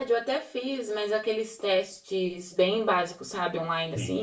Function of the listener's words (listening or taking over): listening